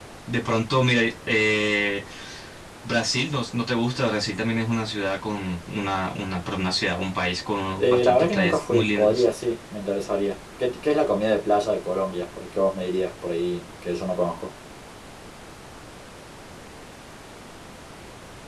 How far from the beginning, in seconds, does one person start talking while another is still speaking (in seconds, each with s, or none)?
7.8 s